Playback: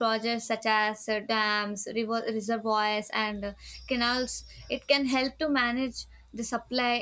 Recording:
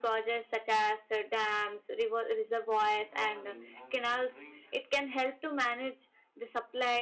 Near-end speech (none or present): present